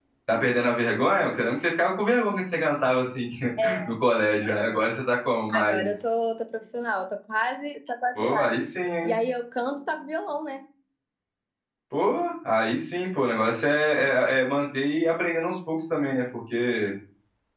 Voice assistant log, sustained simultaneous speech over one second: none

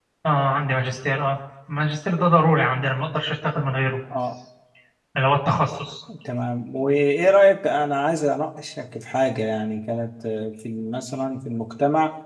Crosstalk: none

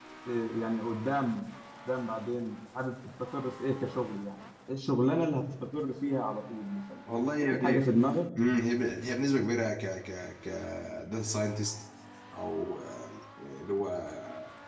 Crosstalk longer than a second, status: none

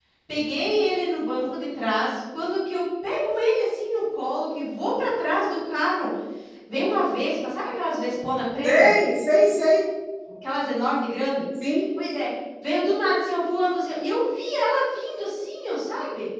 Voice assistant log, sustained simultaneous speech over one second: none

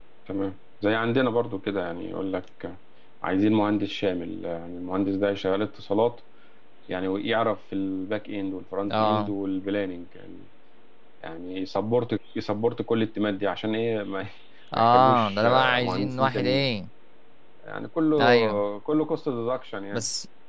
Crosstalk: present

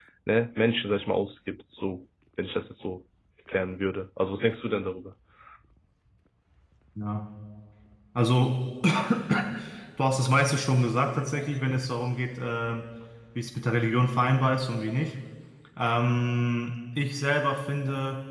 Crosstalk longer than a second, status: none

